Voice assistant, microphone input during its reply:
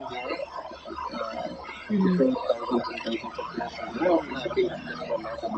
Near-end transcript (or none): Mhm.